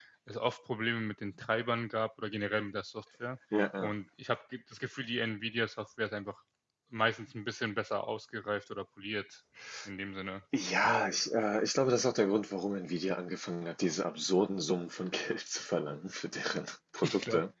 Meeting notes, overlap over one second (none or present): none